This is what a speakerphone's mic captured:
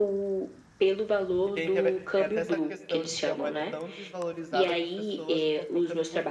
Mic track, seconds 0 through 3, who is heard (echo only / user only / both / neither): both